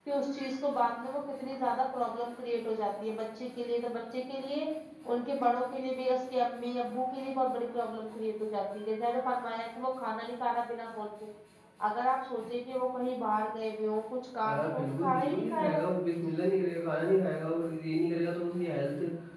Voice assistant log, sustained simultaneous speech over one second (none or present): present